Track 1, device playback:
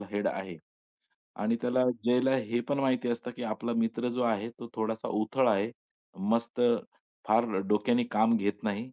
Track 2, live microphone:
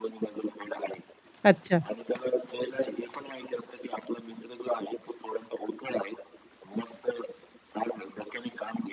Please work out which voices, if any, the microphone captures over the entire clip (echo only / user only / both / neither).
both